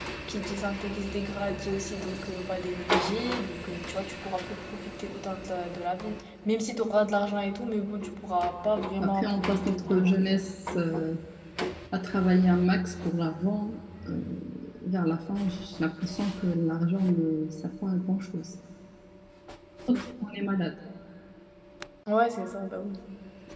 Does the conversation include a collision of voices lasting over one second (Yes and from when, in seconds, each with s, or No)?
Yes, from 9.0 s